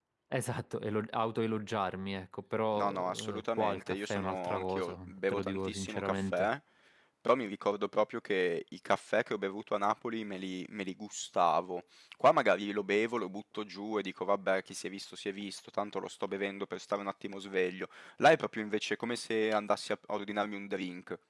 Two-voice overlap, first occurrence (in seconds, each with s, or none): 2.7 s